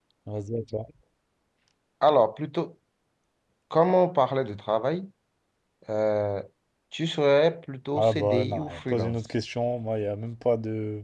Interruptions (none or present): present